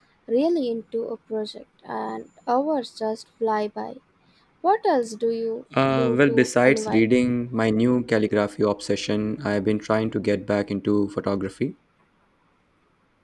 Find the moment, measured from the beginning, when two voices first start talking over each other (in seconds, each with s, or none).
5.7 s